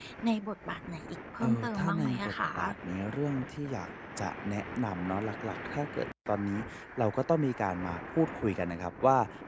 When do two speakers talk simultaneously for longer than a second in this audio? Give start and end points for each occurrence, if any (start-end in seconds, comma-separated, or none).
1.4-2.7